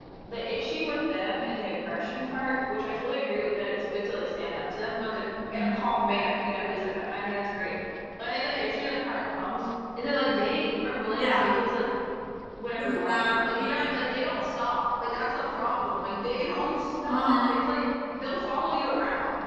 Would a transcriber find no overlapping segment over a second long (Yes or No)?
No